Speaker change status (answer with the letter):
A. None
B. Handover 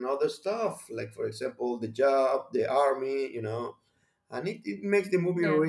A